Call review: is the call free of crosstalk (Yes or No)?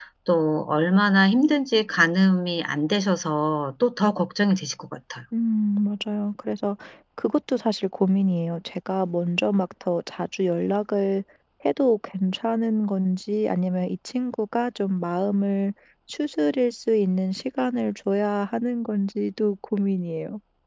Yes